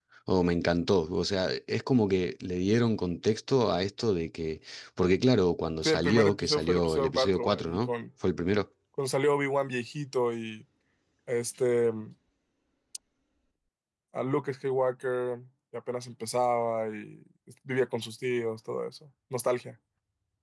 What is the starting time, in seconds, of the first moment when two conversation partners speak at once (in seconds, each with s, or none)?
5.8 s